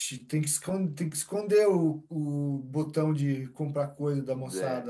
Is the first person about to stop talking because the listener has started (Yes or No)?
Yes